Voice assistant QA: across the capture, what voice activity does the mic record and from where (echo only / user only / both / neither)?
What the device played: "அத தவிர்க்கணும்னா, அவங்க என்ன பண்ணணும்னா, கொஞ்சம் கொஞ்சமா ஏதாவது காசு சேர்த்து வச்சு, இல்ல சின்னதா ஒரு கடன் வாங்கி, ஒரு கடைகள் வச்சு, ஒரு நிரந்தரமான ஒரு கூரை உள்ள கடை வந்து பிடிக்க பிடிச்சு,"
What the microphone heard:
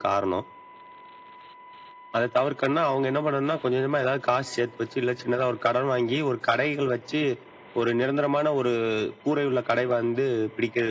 echo only